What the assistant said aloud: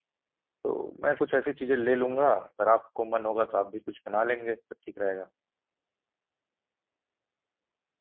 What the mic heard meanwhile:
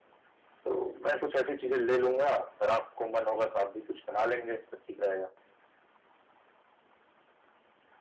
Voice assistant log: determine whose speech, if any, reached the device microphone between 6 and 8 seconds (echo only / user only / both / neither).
neither